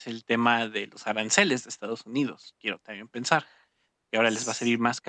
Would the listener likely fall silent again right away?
Yes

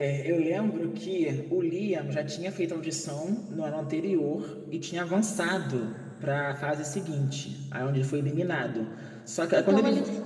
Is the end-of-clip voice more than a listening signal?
Yes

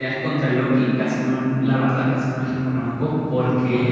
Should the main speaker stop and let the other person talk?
No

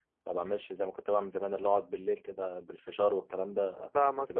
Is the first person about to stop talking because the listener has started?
Yes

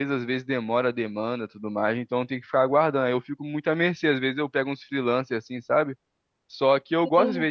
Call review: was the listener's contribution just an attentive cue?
Yes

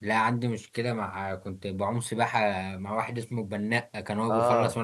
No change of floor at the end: No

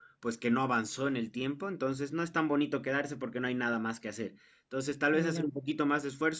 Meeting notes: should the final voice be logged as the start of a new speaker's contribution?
No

